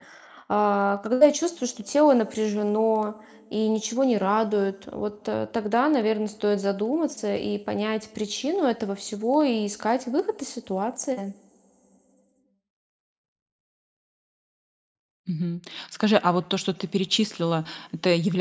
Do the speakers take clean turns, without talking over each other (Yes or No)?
Yes